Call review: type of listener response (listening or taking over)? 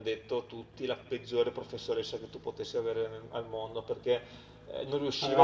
listening